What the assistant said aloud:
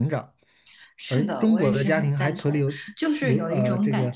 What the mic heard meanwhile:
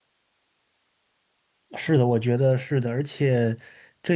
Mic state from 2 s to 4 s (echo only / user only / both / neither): user only